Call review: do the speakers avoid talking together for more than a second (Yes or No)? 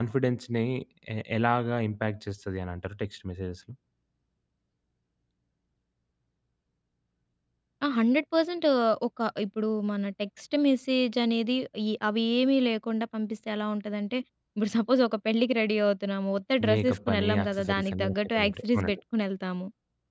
No